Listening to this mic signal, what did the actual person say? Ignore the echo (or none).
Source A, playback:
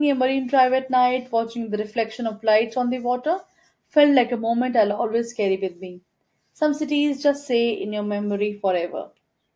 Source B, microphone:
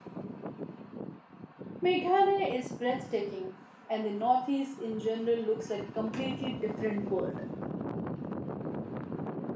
Meghalaya is breathtaking, and the Northeast in general looks like a completely different world.